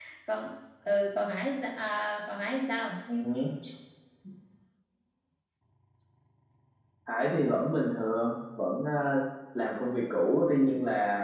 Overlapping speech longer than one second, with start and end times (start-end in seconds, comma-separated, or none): none